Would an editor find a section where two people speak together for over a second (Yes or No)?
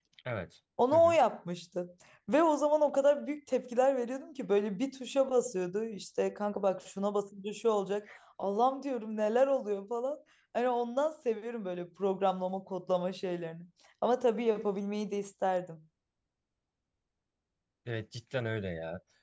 No